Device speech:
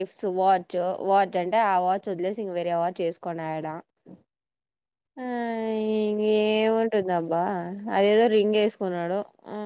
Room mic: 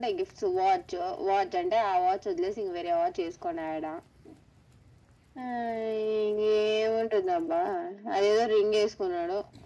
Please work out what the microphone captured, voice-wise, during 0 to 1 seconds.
echo only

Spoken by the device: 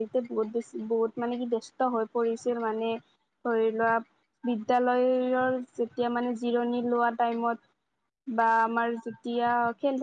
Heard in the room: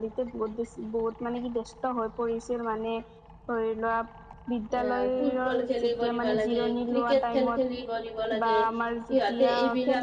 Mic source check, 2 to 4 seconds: echo only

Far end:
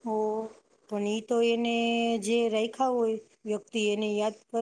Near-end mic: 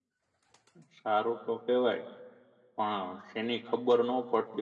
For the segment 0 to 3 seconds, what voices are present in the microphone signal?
user only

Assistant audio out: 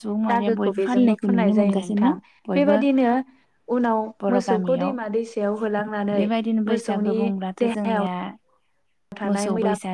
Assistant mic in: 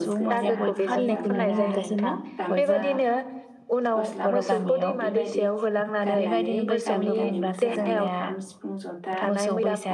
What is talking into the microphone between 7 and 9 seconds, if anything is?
both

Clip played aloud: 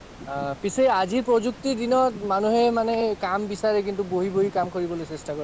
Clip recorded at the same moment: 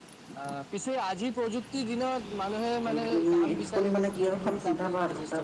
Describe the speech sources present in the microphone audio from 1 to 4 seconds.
both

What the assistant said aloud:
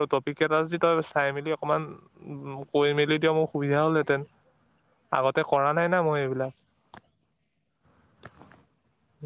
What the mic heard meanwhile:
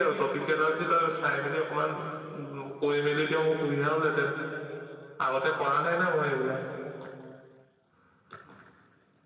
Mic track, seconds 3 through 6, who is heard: echo only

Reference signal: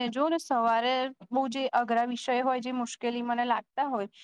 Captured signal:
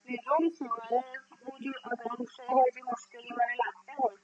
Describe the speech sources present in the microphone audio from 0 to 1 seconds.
echo only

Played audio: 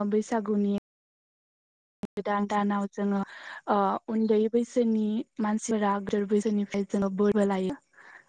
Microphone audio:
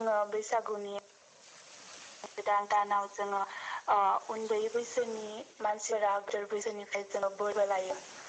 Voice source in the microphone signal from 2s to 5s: echo only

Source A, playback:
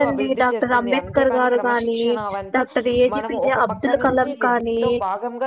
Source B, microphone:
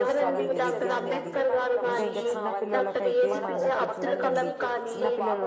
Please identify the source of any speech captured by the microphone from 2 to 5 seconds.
both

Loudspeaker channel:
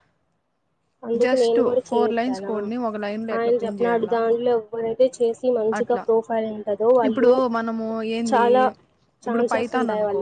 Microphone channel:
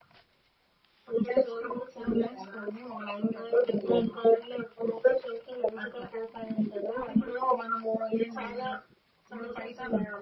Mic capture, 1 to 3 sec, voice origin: echo only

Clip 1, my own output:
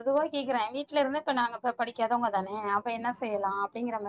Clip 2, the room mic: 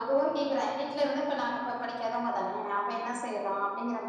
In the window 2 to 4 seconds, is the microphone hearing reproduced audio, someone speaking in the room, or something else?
echo only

